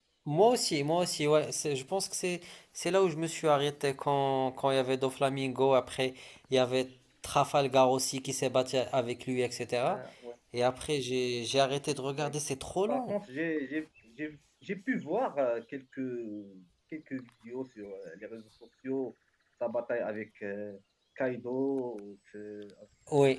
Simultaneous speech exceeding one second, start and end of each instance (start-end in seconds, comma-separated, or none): none